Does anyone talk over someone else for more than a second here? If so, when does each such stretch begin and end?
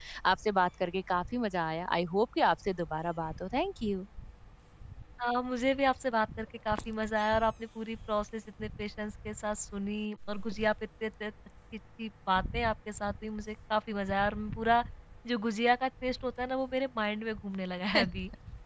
none

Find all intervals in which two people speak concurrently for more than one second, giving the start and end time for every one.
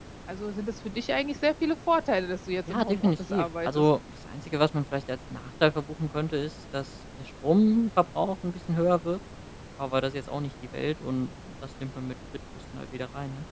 2.7-3.9

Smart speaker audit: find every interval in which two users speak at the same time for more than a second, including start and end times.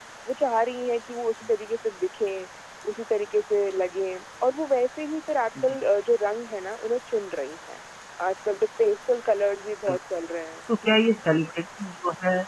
none

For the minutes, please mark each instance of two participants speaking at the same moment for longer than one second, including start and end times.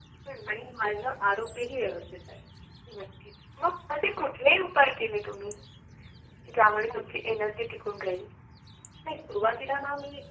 none

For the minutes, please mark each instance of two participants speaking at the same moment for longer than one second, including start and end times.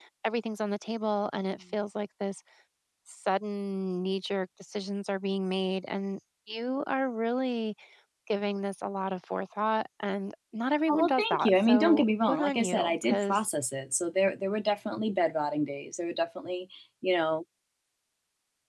10.9-13.4

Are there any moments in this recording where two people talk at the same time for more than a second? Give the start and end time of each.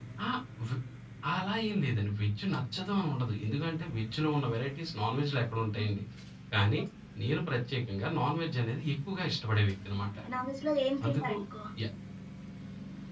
none

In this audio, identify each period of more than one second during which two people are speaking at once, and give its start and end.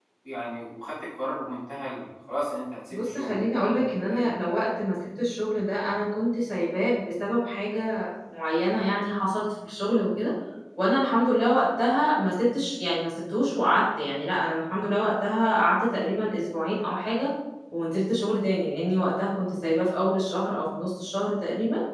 2.9-4.3

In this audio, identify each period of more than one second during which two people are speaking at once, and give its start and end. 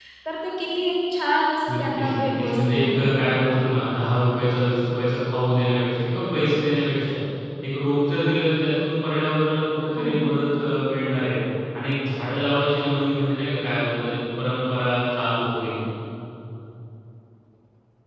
1.7-3.1

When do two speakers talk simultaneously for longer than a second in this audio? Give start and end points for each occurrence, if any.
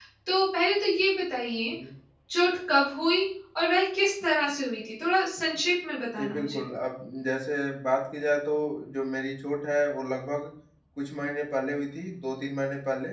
none

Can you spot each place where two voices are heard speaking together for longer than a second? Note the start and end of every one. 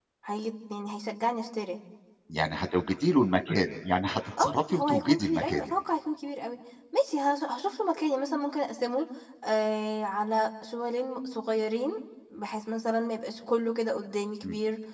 4.4-5.7

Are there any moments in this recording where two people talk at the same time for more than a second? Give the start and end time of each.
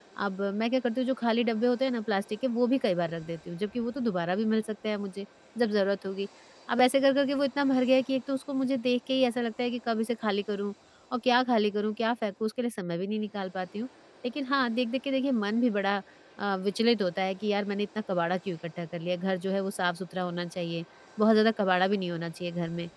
none

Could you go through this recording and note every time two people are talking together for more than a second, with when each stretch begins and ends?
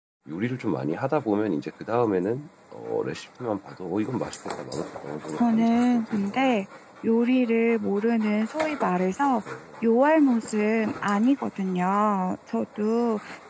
5.4-6.6

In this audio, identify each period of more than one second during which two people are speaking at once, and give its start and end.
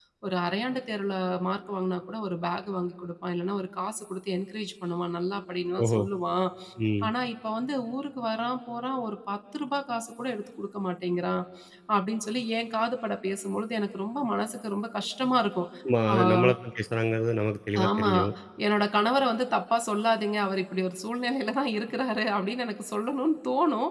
none

